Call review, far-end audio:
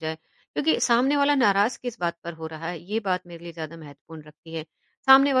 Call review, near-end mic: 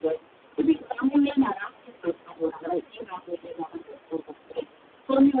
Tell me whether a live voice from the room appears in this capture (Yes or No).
No